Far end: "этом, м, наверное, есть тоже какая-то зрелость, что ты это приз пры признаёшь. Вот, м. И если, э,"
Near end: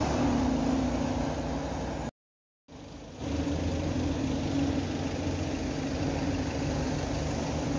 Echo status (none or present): none